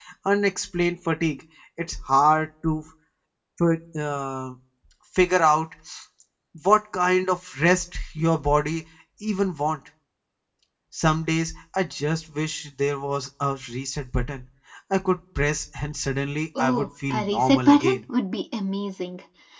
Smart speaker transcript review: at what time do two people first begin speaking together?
17 s

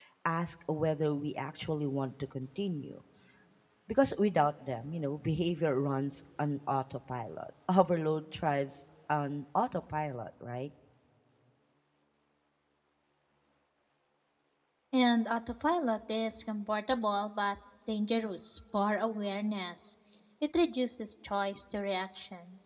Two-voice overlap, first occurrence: none

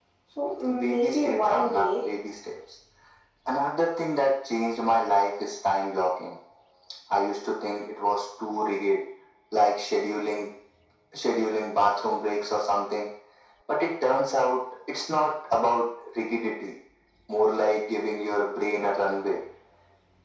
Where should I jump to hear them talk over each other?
1 s

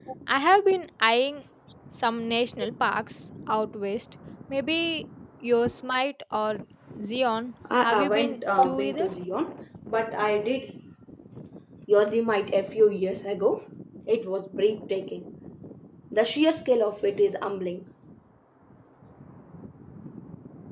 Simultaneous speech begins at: 8 s

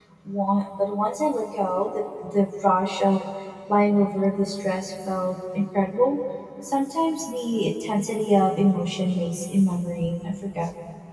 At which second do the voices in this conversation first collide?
none

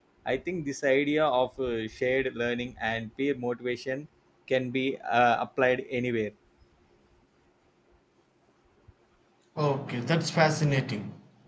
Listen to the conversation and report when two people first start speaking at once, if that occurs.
none

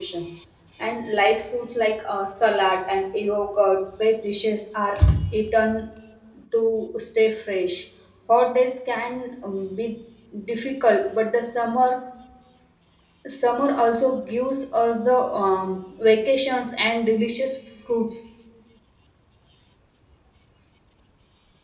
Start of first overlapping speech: none

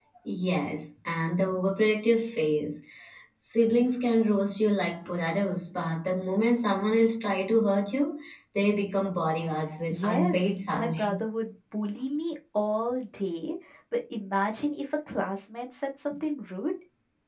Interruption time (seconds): 10 s

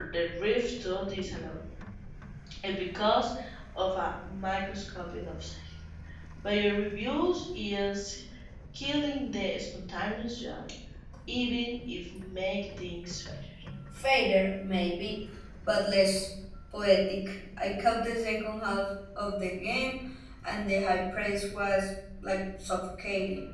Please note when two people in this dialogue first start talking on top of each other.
none

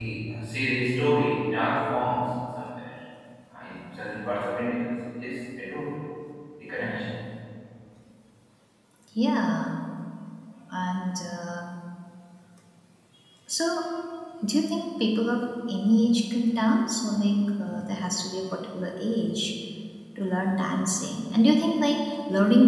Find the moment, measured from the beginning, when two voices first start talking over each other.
none

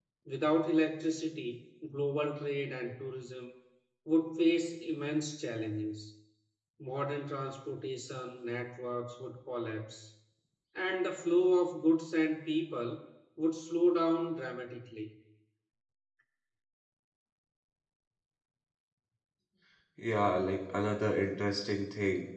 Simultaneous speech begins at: none

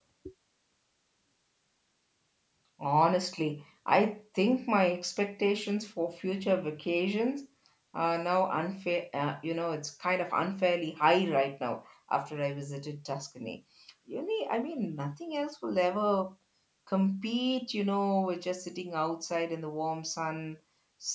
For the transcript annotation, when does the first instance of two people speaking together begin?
none

